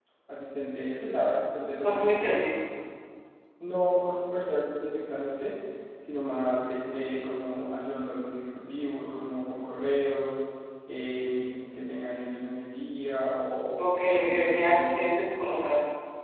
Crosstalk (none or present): present